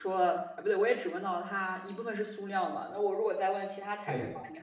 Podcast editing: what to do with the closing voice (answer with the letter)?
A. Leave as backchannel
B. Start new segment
A